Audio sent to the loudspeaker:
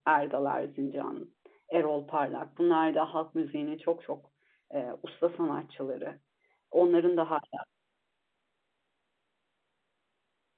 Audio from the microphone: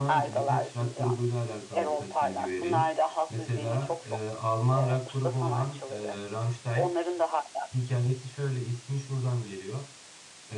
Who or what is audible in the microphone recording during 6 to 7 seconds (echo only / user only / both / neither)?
both